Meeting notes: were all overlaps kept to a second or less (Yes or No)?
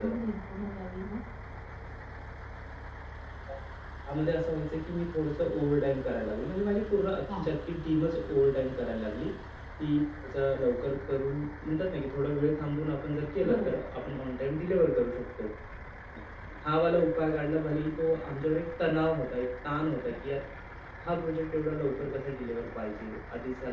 Yes